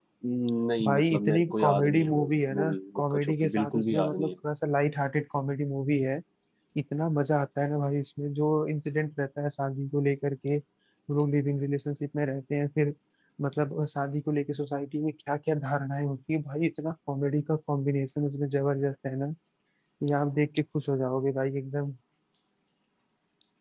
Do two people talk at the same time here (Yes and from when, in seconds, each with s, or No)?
Yes, from 0.8 s